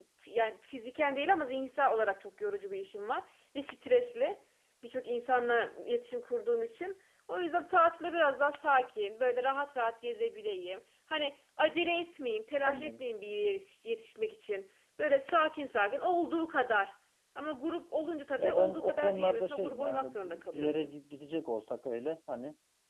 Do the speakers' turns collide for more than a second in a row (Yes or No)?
Yes